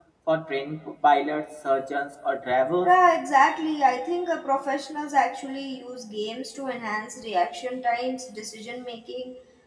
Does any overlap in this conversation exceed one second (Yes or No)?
No